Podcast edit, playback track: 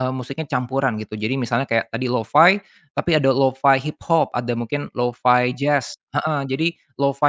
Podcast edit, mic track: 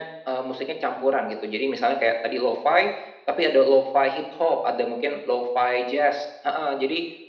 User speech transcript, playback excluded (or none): none